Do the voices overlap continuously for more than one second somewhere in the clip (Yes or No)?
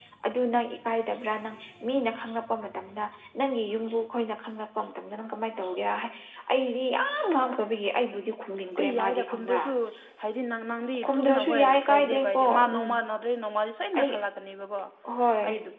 Yes